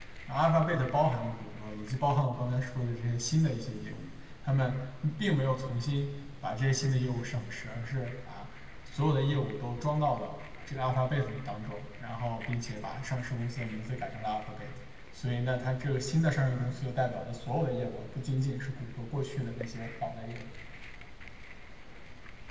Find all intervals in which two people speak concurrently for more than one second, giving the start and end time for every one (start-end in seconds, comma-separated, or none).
none